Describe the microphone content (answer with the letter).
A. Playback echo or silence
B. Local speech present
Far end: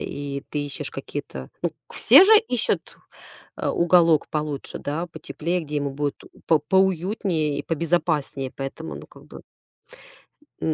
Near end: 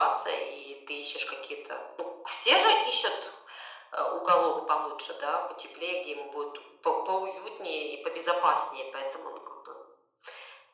A